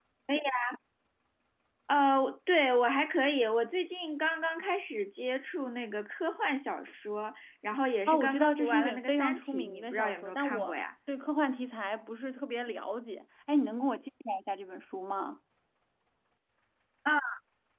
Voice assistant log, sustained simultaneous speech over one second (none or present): present